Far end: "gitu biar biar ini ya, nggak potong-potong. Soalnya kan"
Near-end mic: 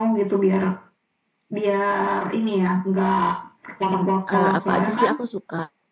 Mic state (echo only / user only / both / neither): both